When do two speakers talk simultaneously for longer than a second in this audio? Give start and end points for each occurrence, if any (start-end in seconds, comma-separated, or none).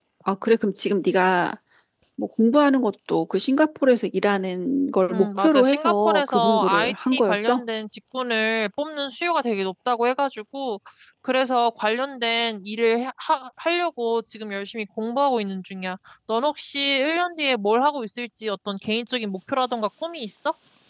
5.1-7.6